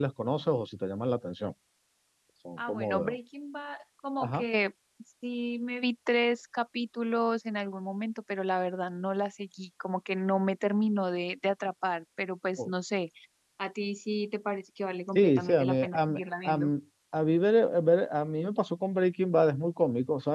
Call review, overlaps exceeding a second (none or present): present